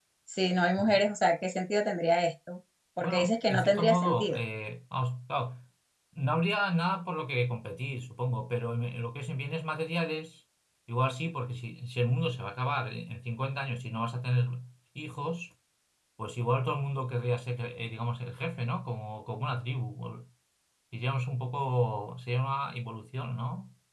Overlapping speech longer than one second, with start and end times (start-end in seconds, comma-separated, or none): 3.0-4.4